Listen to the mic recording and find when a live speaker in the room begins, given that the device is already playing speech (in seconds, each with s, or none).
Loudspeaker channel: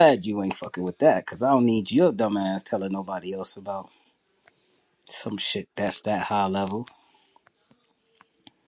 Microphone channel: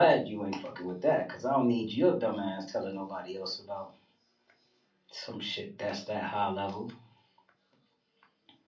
none